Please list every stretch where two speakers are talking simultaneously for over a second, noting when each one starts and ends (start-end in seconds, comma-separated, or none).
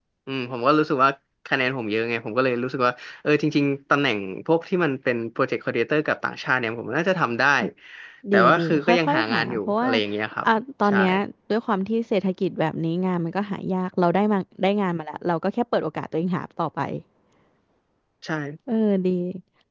8.3-9.9